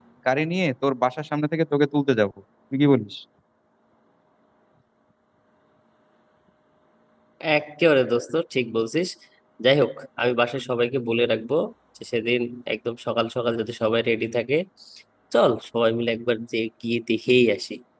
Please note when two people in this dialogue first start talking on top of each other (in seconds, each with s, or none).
none